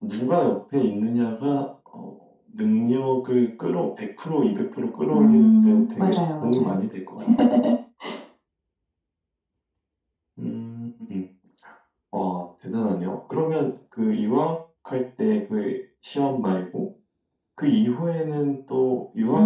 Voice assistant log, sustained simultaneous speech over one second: present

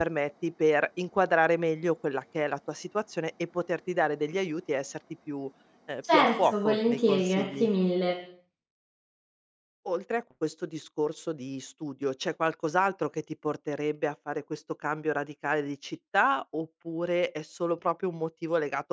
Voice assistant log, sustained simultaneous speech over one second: present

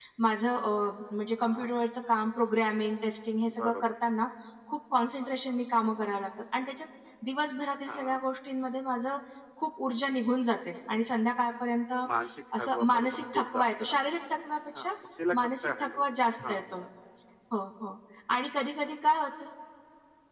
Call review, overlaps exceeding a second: present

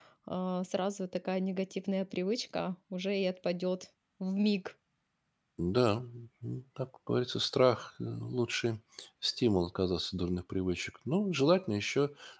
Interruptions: none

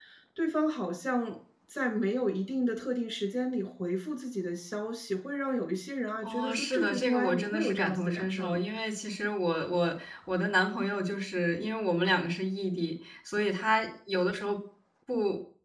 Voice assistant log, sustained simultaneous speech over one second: present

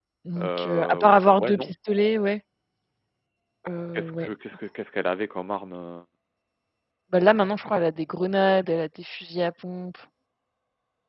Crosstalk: present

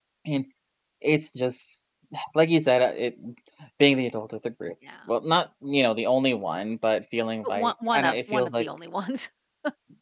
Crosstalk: present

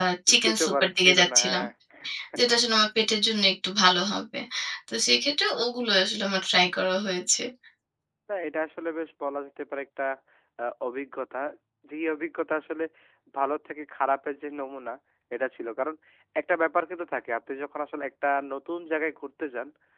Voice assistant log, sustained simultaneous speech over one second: present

